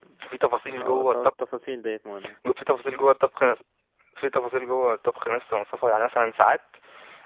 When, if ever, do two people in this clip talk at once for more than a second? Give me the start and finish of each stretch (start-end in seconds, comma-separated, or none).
none